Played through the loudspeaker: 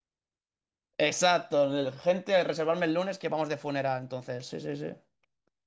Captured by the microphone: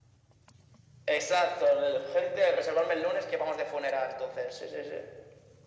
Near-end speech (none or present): none